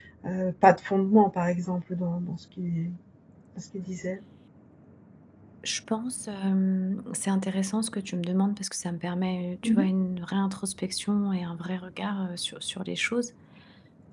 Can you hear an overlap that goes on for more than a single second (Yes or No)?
No